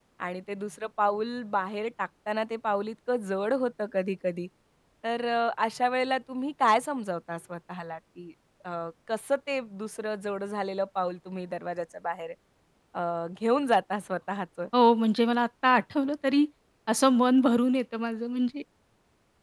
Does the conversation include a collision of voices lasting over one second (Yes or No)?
No